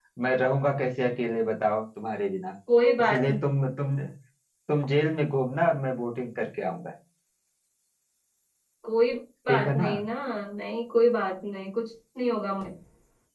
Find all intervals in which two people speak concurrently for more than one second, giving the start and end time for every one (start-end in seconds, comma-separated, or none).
none